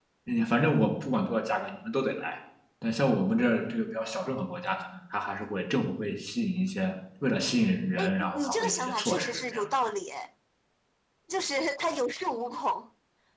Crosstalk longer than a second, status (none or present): present